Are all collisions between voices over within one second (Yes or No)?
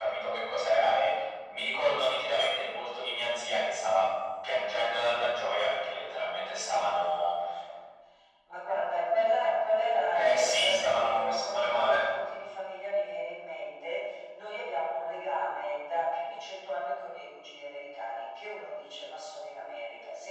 No